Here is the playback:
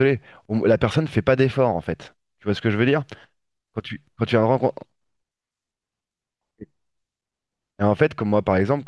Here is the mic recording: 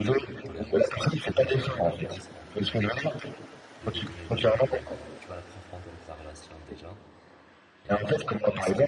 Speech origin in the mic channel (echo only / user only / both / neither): both